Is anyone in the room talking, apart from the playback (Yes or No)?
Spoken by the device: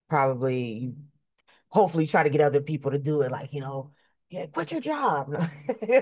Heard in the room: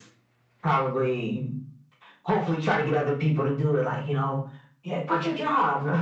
No